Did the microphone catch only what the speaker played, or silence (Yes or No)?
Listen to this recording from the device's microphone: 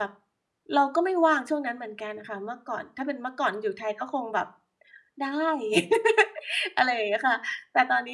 No